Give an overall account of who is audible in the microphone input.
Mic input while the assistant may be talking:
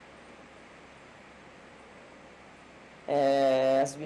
user only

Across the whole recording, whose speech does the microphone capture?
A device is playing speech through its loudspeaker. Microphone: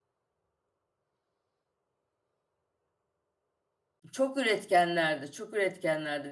user only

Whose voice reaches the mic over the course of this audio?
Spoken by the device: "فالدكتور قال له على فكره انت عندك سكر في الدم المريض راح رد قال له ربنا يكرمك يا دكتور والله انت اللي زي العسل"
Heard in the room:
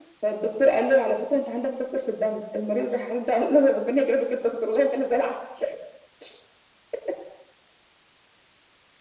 echo only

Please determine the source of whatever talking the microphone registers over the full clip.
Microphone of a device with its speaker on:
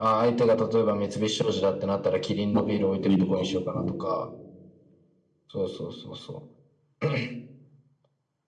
both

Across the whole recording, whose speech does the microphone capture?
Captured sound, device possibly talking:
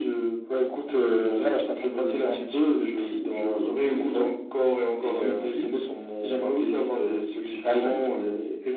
echo only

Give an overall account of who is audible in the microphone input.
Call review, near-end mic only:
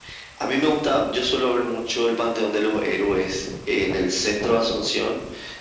echo only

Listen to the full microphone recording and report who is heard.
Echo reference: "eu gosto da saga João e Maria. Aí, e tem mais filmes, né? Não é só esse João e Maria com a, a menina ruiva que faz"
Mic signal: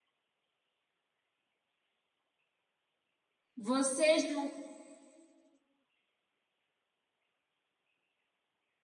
user only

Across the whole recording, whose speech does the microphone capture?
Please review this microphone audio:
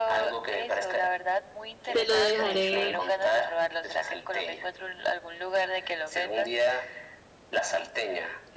both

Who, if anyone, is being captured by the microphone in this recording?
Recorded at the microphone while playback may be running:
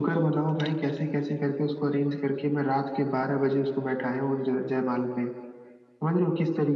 echo only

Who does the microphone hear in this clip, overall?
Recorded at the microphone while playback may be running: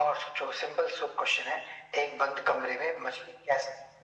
echo only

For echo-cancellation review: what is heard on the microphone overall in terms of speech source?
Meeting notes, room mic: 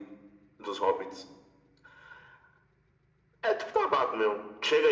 echo only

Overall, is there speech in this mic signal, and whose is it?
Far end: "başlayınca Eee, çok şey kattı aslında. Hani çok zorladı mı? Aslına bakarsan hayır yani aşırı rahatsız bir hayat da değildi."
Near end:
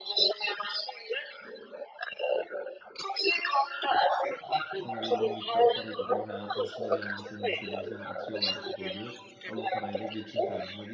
both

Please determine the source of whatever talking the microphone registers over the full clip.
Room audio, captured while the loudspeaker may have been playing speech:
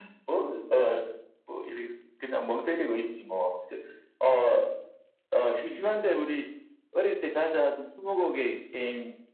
echo only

